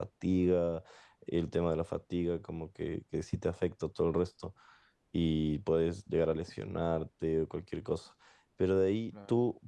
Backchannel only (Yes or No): Yes